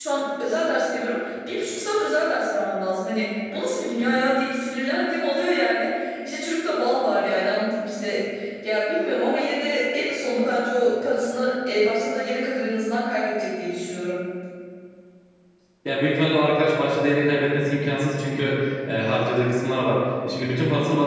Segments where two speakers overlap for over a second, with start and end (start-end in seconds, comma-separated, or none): none